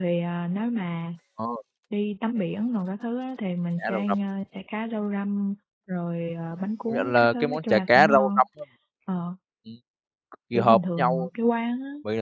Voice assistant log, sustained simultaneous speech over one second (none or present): present